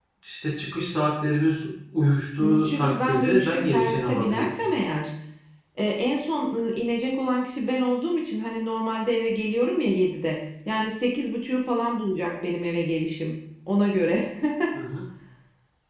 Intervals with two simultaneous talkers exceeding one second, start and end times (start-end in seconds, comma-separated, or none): 2.4-4.5